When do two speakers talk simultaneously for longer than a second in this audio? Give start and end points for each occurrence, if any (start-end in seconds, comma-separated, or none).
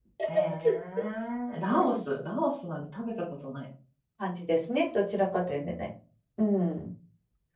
none